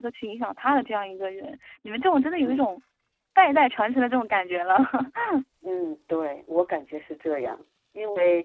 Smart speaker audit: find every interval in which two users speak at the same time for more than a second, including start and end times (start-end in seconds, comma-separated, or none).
none